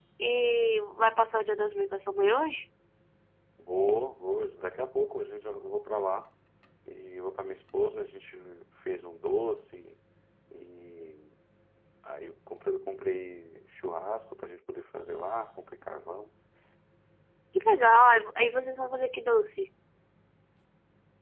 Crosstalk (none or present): none